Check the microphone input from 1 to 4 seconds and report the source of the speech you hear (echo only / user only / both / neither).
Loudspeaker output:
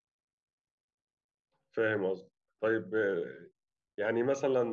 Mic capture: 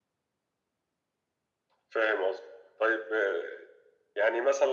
echo only